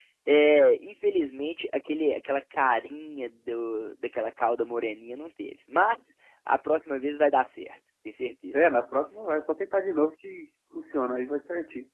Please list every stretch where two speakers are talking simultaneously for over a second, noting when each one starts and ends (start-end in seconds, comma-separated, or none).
none